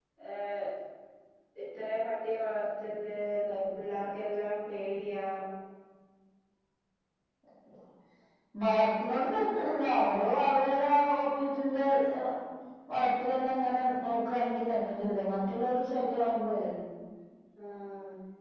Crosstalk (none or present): none